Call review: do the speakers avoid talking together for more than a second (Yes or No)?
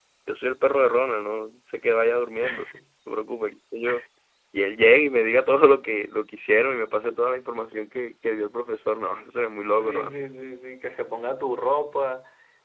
Yes